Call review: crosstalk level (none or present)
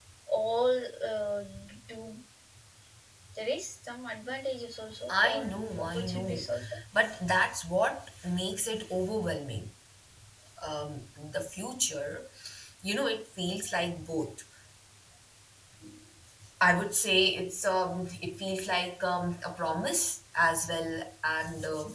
present